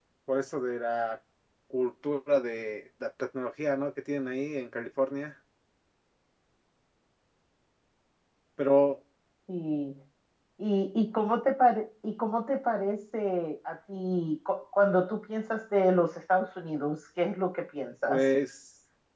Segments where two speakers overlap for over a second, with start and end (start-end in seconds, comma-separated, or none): none